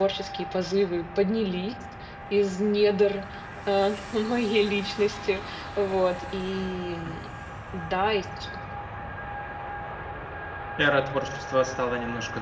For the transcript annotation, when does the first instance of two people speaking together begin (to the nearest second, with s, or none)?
none